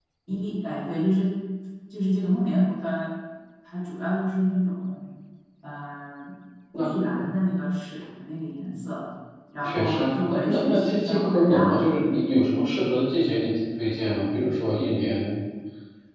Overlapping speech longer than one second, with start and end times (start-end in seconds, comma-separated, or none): 9.7-12.1